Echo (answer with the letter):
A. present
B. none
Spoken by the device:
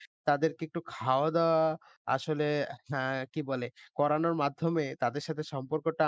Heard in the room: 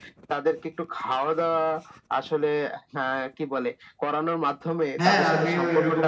A